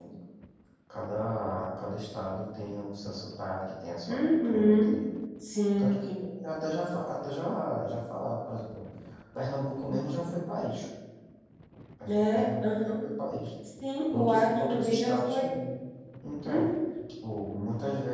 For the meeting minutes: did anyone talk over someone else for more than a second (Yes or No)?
Yes